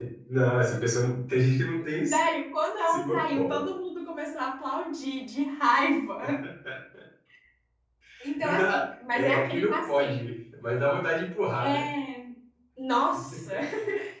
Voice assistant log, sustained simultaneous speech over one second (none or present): present